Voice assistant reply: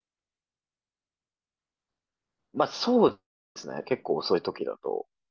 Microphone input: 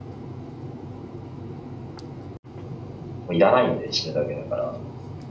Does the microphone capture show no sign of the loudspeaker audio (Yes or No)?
Yes